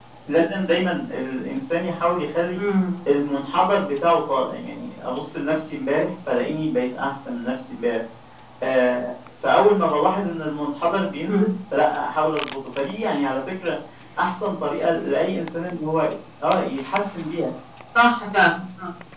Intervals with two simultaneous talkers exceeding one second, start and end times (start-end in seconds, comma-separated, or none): none